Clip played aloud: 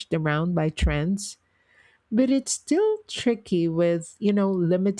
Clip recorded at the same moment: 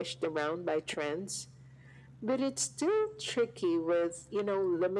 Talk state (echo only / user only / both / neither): echo only